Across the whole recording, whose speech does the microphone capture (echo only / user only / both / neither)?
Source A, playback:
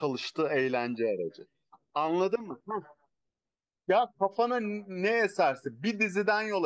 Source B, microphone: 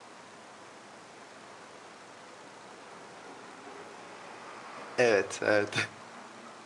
user only